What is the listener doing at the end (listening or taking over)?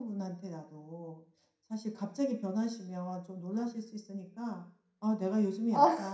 listening